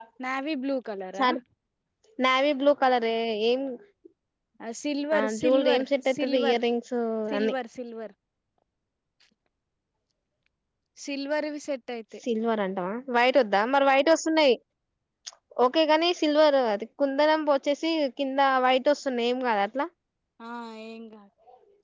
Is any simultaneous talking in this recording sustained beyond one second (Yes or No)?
Yes